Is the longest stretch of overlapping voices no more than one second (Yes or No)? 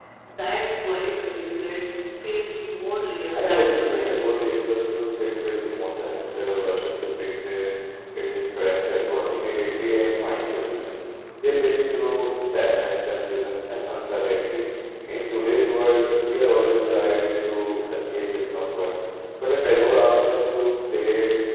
No